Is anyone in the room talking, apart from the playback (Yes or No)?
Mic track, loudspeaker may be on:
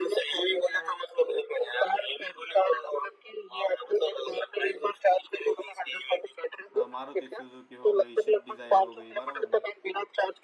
Yes